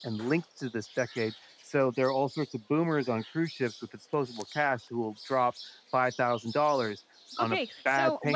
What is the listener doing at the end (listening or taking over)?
taking over